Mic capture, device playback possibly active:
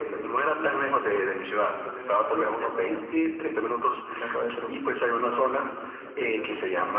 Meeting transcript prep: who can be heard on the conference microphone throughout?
echo only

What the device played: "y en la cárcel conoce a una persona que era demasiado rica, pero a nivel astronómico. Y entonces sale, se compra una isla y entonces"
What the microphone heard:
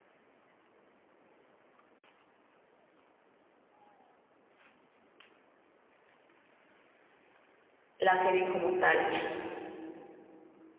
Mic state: user only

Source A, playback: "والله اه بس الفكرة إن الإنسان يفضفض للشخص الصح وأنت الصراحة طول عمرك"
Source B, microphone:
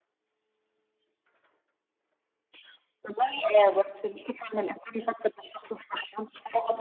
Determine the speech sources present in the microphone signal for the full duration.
echo only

